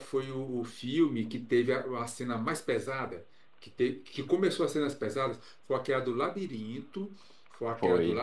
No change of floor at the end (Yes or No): Yes